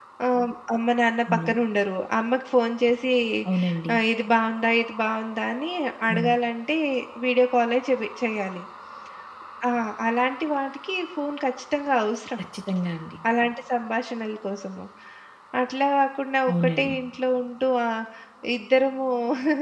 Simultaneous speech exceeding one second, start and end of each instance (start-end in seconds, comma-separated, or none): none